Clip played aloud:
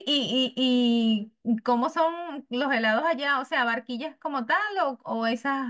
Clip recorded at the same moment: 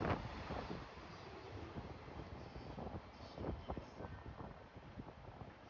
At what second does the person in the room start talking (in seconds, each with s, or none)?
none